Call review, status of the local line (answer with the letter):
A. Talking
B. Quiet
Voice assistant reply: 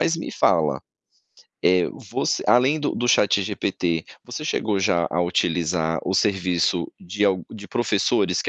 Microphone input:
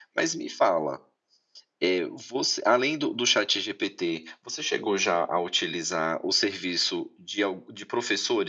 B